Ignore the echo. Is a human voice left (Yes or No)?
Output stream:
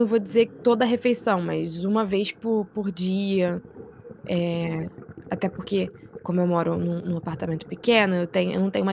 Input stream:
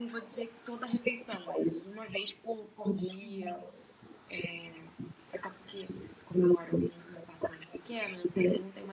Yes